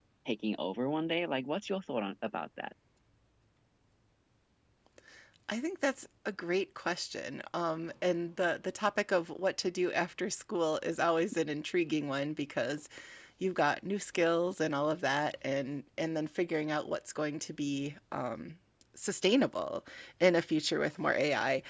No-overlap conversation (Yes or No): Yes